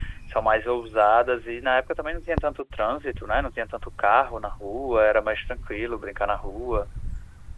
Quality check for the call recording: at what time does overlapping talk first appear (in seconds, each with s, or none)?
none